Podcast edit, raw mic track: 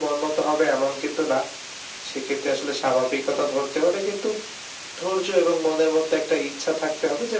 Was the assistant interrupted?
No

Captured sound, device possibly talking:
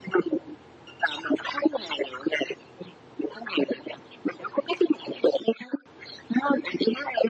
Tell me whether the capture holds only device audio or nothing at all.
Yes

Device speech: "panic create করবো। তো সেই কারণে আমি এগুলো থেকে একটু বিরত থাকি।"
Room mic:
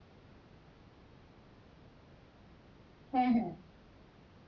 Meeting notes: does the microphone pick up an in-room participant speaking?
Yes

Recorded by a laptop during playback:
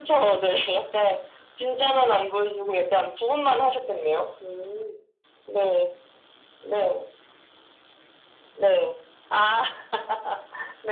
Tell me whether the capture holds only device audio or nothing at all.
Yes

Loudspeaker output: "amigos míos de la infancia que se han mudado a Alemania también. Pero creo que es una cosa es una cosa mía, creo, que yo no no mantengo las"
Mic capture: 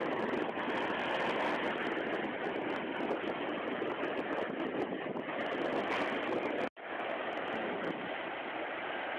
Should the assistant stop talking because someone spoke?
No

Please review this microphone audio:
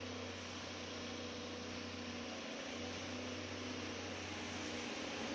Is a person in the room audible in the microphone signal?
No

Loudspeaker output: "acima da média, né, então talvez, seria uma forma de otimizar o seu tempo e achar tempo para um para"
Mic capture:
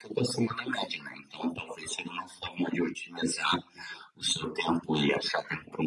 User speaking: No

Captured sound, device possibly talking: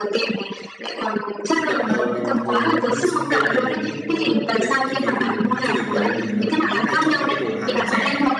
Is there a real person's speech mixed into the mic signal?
Yes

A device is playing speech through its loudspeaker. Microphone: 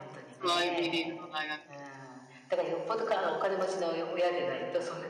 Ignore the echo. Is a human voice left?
Yes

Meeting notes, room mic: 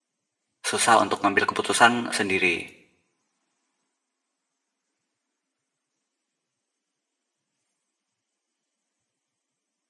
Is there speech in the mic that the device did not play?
Yes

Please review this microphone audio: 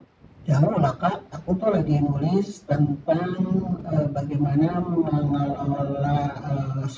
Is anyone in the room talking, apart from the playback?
No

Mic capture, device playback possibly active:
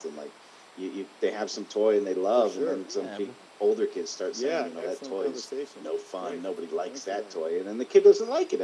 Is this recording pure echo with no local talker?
No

